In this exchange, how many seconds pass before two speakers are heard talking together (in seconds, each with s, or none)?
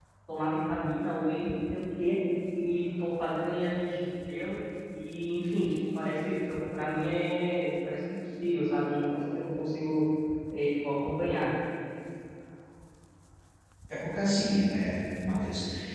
none